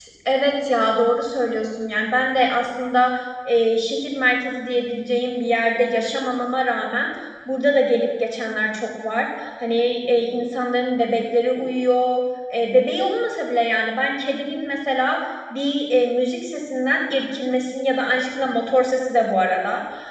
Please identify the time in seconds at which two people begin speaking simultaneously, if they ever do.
none

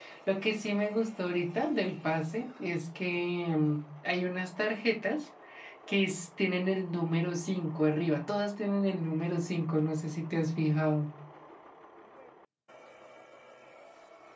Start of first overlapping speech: none

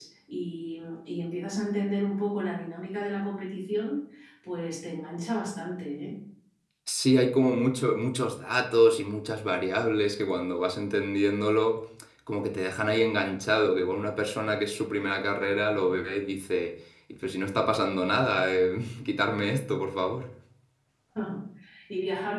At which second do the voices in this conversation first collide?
none

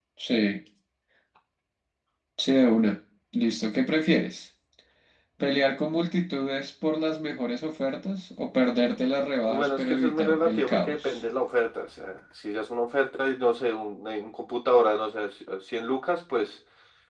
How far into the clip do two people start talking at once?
9.5 s

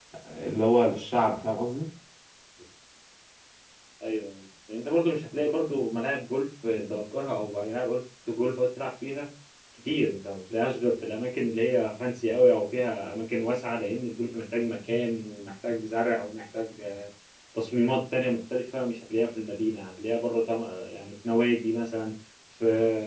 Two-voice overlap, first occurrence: none

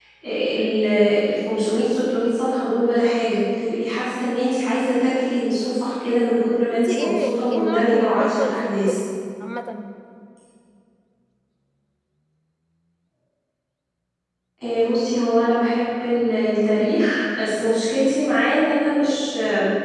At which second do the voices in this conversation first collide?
6.8 s

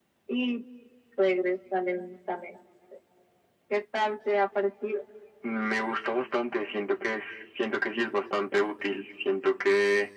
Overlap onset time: none

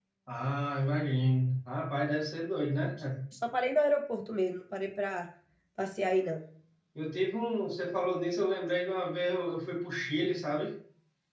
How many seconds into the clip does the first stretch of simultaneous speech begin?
none

